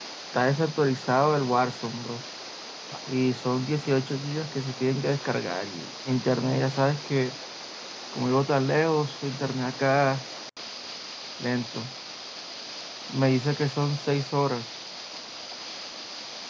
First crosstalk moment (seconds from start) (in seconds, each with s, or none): none